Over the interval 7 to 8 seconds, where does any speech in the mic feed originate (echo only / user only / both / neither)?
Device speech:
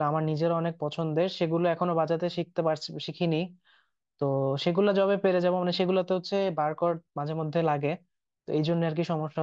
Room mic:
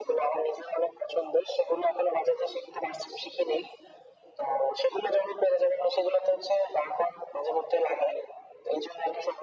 echo only